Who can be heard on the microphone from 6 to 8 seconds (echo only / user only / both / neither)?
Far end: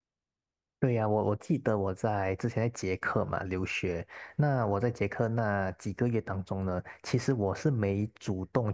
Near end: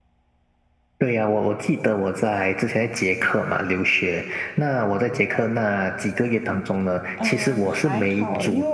both